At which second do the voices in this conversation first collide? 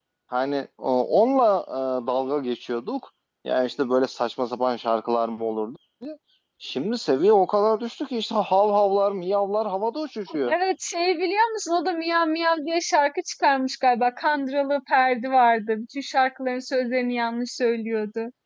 none

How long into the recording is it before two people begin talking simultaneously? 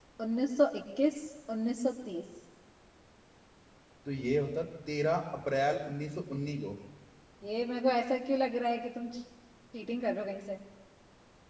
none

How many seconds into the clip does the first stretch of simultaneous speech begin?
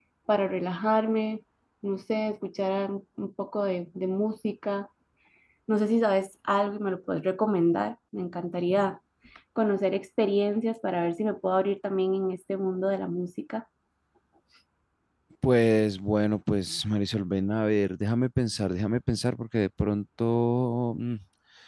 none

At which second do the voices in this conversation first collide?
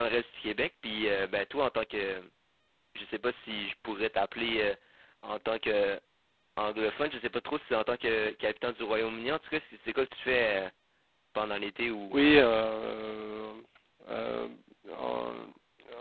none

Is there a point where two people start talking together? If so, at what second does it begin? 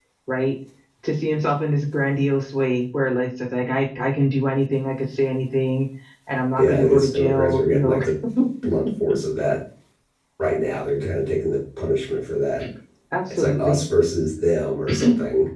6.6 s

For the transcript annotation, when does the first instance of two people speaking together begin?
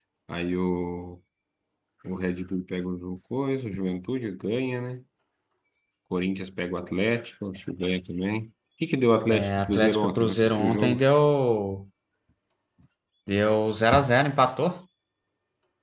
9.3 s

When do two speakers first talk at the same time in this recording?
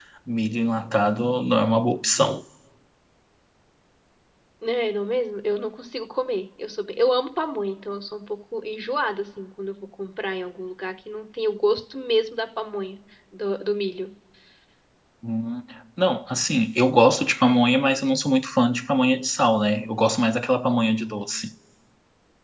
none

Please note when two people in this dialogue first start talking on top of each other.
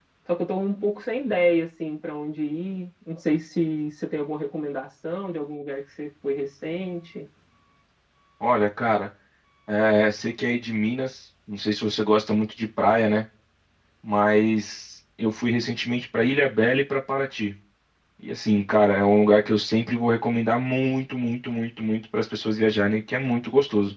none

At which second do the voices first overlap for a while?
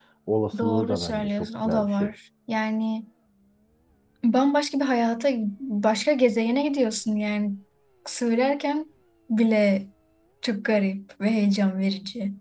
0.6 s

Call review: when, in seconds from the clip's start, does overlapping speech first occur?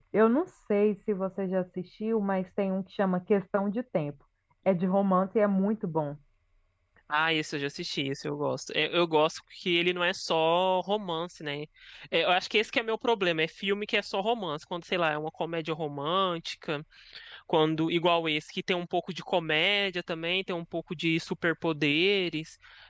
none

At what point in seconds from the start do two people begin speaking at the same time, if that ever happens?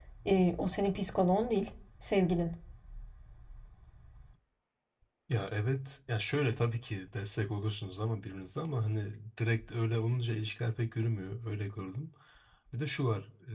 none

